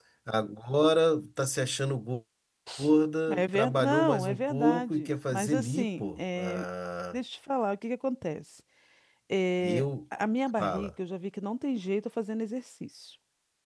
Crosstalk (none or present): present